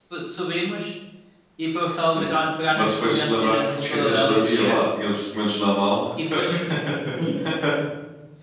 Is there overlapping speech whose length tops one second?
Yes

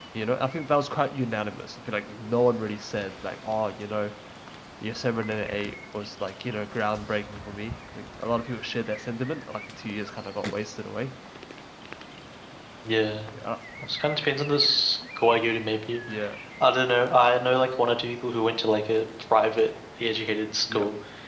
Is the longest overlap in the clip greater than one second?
No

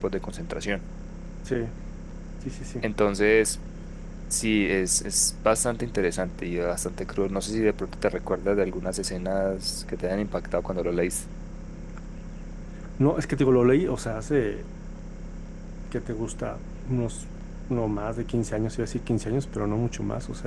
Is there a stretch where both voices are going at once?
No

